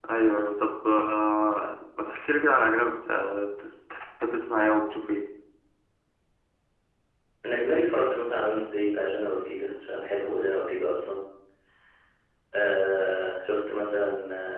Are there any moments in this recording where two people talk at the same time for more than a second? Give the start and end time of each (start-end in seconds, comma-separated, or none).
none